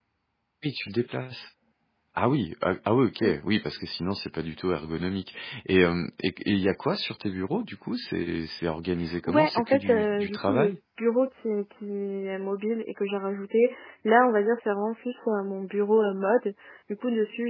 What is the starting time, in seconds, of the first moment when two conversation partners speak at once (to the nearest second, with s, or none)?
9 s